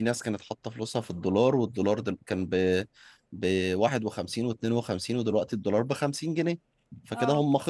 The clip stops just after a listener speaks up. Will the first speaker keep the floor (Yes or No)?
Yes